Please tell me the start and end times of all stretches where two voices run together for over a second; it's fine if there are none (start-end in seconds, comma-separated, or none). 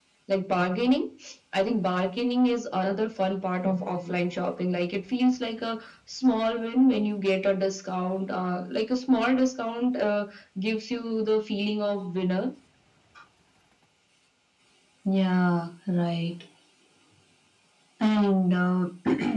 none